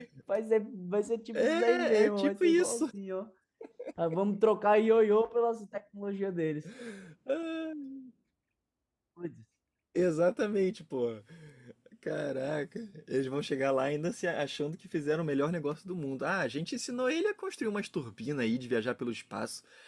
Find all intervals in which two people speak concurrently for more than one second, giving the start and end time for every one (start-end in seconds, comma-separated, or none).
1.4-2.8